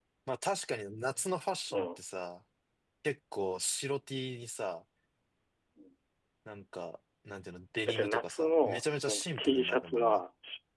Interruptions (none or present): present